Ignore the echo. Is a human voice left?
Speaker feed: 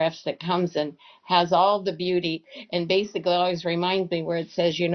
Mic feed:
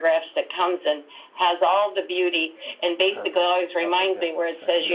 Yes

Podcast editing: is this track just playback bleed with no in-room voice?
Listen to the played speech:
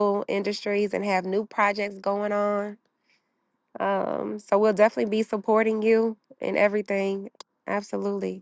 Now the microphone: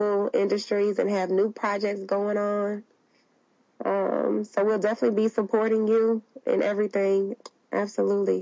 Yes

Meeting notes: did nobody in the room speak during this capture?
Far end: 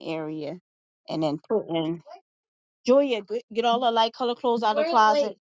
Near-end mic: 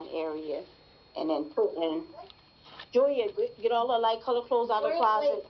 Yes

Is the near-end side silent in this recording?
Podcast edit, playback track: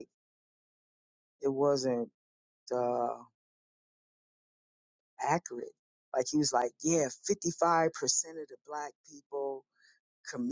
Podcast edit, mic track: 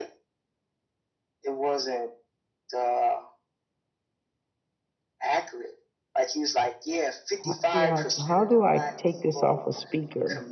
No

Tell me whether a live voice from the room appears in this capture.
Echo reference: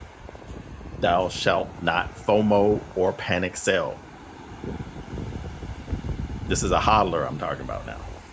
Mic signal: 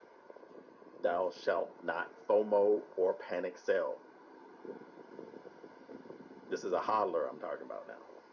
No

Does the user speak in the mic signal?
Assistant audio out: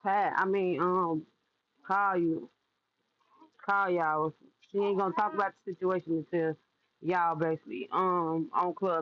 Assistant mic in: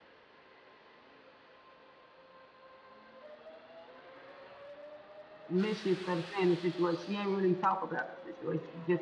Yes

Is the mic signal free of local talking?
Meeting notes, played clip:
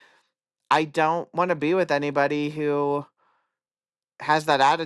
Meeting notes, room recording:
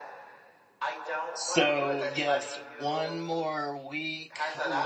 No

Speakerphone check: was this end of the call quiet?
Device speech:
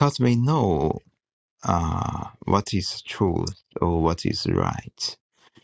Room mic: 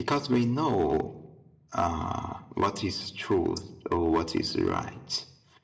Yes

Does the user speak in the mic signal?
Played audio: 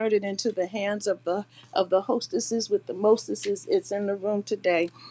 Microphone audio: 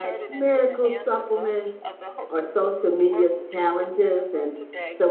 Yes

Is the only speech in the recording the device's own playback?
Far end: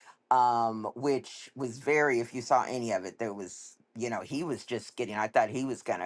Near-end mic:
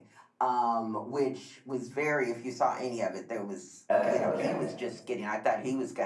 No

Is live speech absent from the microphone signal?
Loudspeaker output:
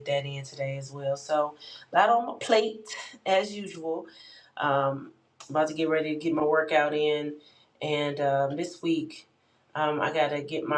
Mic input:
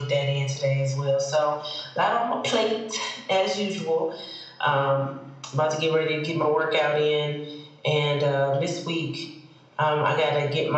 Yes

